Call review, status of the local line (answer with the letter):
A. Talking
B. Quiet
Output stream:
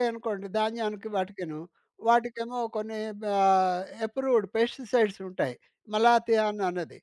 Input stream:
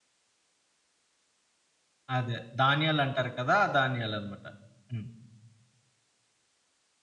A